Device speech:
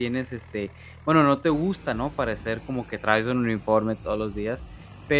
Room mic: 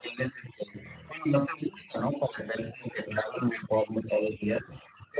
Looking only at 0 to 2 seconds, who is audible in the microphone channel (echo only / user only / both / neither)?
echo only